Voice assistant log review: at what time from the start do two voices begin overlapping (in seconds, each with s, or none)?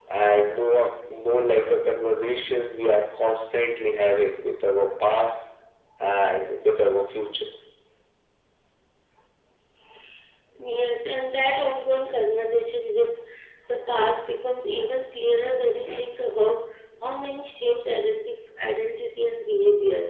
none